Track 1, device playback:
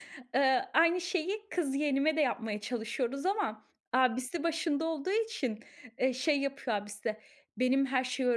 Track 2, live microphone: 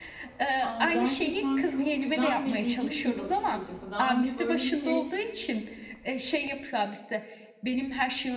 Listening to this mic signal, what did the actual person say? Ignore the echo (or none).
A, gerçekten çok güzel ve ilginç bir bakış açısı. Daha önce böyle bir şey,